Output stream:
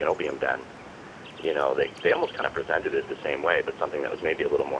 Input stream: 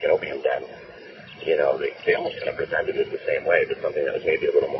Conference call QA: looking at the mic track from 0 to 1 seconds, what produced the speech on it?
echo only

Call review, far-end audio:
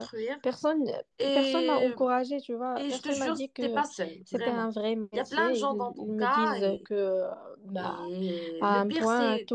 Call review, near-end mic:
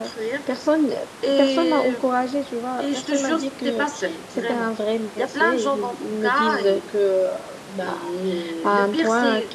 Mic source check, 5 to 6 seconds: echo only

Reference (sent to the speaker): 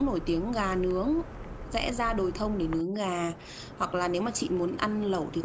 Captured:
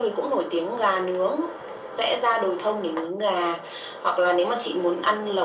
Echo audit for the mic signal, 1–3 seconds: echo only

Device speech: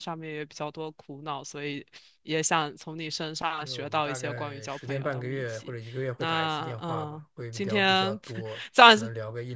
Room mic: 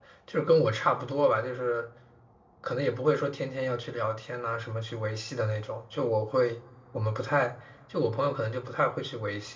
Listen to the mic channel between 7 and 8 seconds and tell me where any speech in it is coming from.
user only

